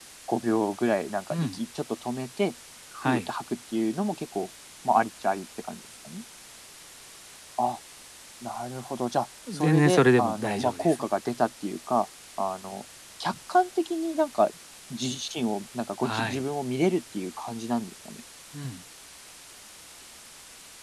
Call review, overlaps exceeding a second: present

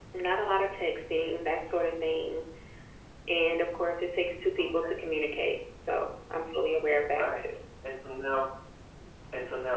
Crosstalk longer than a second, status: none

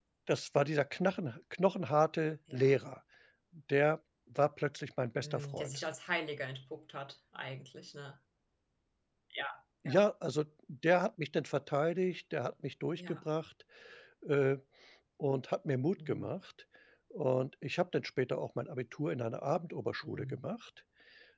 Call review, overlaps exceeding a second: none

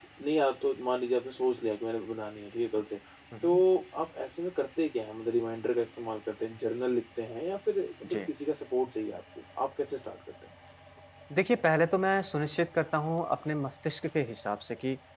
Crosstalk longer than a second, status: none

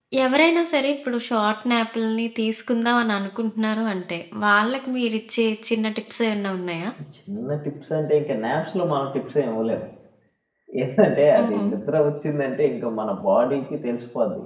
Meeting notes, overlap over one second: none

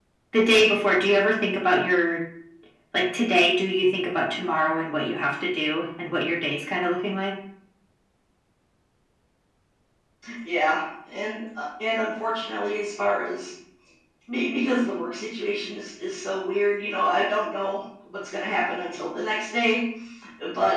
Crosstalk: none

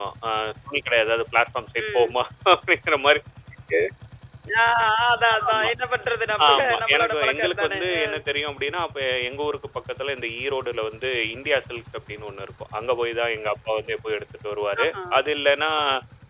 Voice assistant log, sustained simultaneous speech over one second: present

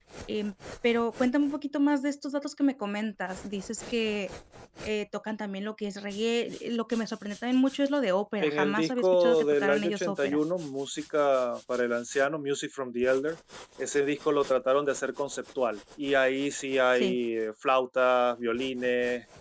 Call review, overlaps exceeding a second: present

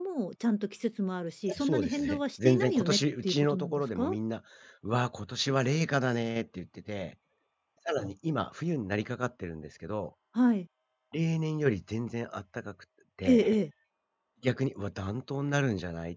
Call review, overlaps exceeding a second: present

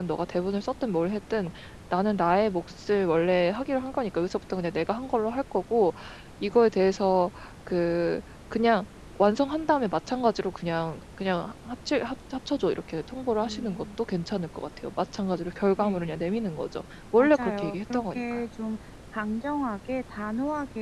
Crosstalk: present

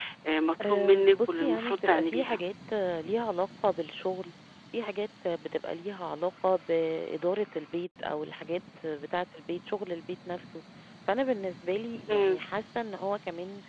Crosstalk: present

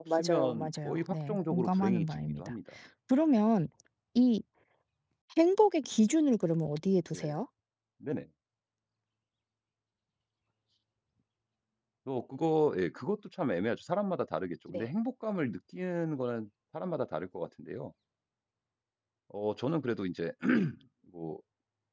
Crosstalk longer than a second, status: present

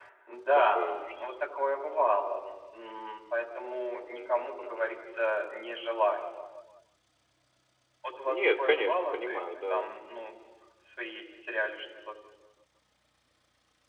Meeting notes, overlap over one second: present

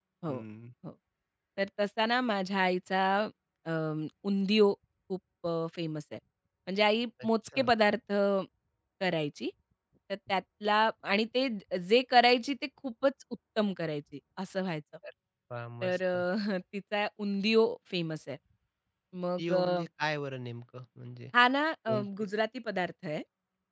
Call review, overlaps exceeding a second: none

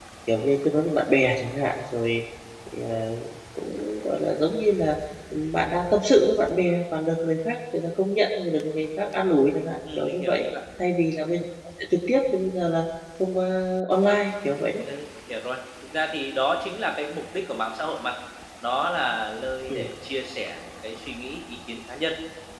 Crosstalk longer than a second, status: none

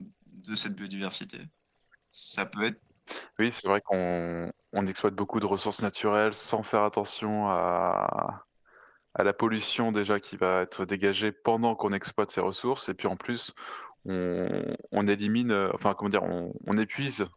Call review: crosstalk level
none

